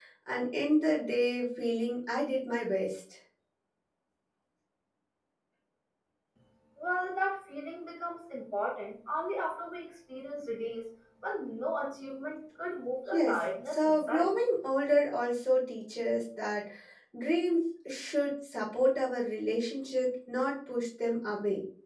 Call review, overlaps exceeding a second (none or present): present